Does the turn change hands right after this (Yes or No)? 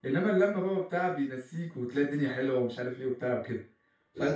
No